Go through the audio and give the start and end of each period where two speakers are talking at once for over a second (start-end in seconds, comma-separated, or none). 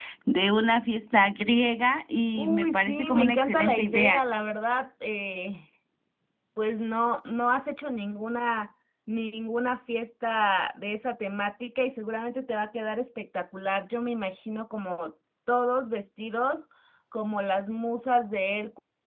2.3-4.2